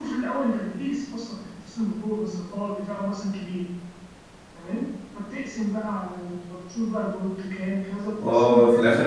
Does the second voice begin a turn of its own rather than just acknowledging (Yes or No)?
Yes